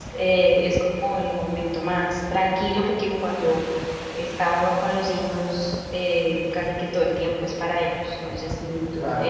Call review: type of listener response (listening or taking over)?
listening